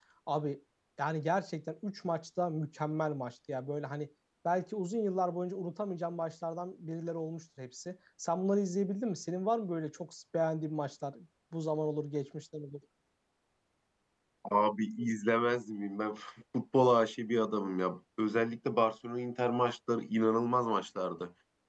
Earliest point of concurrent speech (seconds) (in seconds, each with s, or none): none